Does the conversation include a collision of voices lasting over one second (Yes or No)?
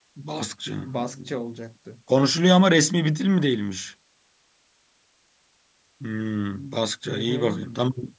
No